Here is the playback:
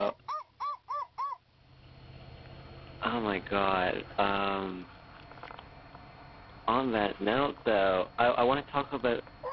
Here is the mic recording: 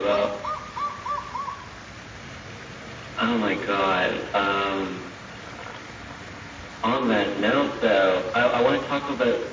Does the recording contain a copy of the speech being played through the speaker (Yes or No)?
Yes